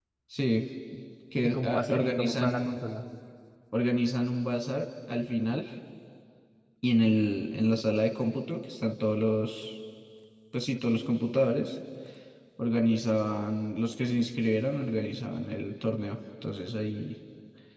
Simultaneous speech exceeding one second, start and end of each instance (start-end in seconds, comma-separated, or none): 1.4-2.8